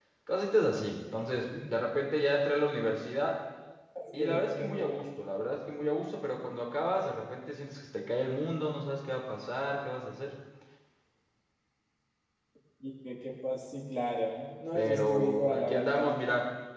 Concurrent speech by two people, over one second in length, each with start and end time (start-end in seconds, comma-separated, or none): 14.8-16.2